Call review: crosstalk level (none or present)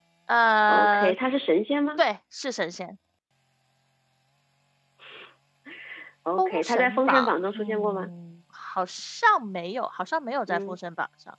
present